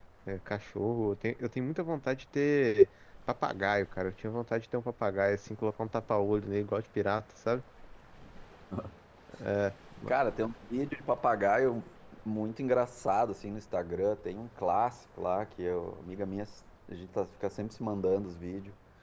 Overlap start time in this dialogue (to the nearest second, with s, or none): none